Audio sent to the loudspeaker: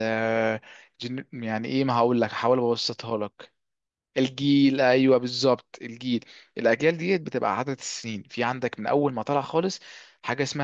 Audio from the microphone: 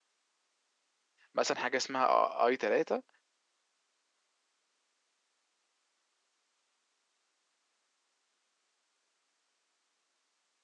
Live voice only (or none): مثلا حاجه اسمها اي 3